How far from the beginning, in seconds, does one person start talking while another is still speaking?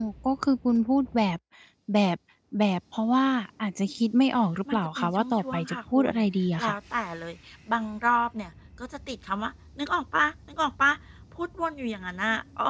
4.6 s

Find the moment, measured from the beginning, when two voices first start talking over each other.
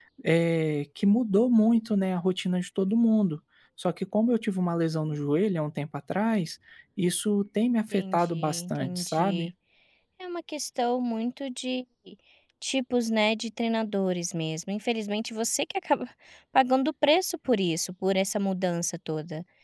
7.9 s

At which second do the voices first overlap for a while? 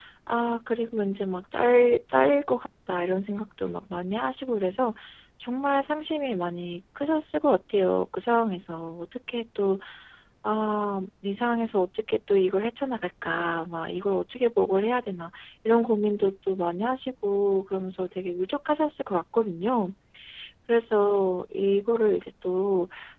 none

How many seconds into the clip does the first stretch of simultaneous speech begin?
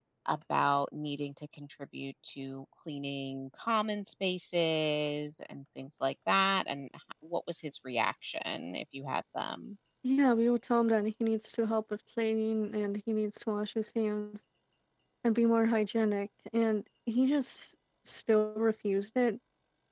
none

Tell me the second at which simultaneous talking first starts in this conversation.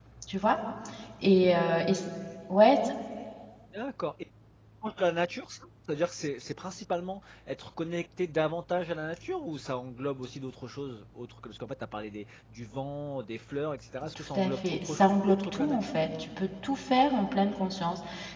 14.2 s

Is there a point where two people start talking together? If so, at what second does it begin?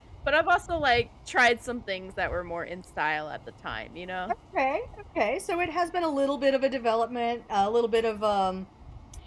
none

